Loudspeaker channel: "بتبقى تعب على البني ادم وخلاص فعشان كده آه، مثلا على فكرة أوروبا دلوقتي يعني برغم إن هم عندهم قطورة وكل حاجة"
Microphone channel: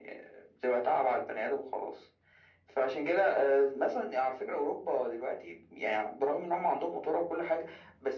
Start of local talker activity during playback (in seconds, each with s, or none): none